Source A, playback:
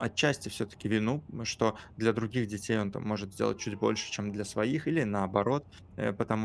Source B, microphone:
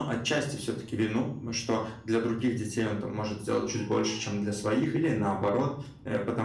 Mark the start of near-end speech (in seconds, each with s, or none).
none